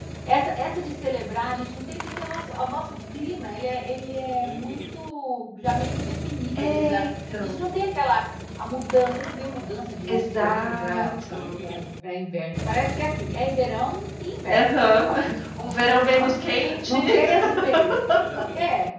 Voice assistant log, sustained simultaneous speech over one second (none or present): present